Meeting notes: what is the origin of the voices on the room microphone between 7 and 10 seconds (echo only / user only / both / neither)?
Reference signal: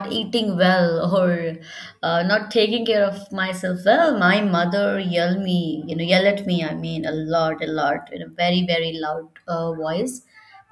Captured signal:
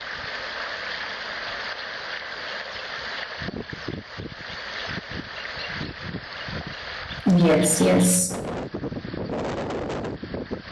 user only